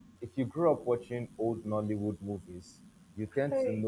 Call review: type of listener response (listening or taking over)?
listening